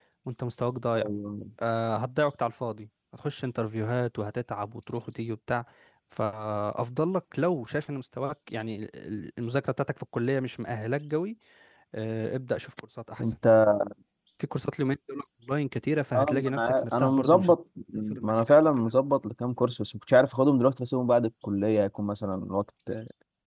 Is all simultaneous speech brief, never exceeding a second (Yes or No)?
No